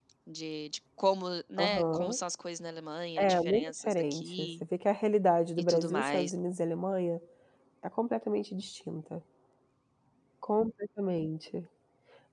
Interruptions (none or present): present